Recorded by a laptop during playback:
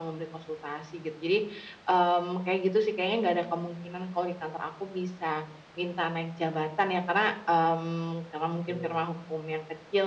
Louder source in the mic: echo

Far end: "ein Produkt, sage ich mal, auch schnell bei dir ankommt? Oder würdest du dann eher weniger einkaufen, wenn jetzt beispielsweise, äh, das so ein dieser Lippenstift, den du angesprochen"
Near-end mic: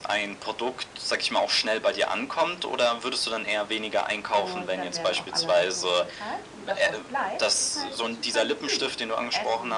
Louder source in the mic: echo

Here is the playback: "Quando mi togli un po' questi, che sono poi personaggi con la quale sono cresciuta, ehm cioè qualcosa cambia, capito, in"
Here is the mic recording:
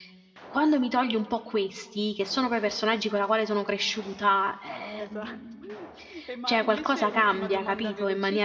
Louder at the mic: echo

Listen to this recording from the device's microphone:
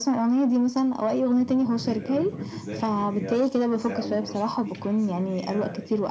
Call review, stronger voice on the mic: echo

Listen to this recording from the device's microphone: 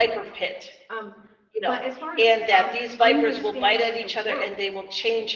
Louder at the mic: user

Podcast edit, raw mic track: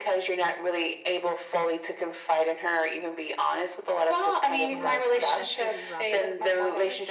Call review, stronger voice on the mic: echo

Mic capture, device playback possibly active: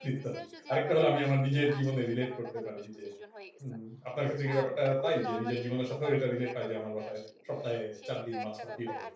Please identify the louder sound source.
user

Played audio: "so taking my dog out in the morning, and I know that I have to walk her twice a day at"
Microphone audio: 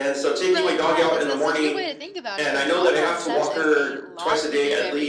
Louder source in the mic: echo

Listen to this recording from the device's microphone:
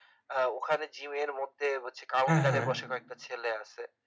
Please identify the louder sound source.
user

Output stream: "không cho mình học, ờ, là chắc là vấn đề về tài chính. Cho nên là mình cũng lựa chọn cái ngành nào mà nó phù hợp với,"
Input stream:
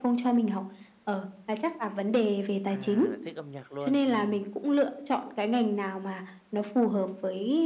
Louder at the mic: echo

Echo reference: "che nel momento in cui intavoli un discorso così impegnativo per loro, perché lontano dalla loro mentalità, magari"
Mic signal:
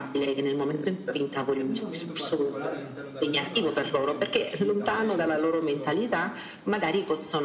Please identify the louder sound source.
echo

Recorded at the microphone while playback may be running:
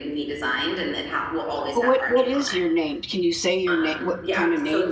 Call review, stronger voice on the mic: user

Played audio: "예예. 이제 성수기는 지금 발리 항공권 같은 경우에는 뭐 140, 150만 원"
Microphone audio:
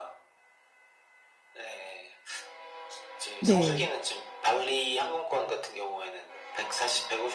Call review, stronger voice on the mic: user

